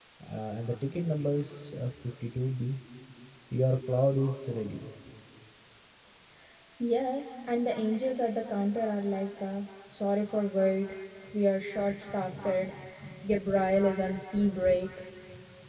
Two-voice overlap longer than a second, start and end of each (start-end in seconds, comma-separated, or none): none